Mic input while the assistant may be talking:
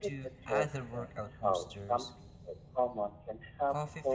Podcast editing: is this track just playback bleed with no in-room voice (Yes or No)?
No